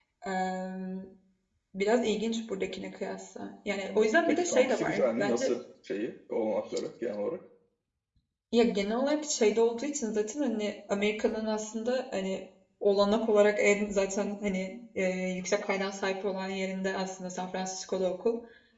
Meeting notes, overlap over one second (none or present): present